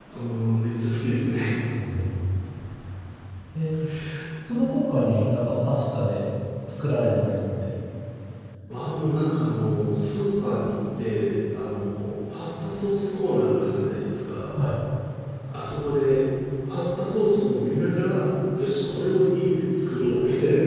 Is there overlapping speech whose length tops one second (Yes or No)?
No